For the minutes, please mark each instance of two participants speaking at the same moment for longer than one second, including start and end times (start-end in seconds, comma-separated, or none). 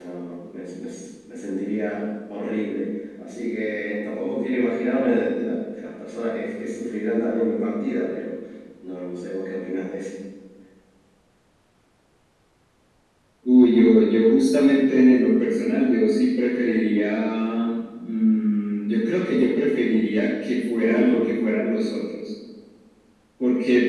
none